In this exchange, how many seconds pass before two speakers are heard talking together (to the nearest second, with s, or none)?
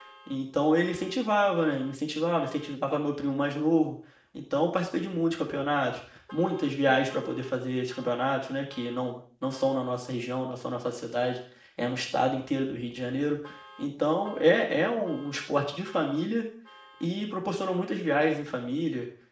none